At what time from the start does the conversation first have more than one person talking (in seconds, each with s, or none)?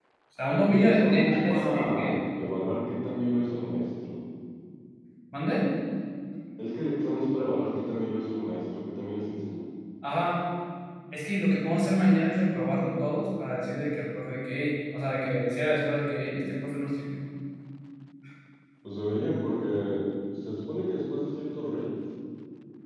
0.7 s